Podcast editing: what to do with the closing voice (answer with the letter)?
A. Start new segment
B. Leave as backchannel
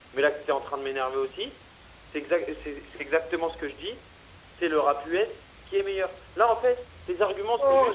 A